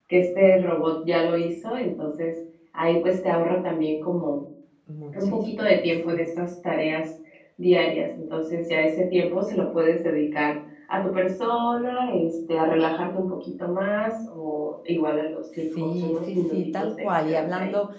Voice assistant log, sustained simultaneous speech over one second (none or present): present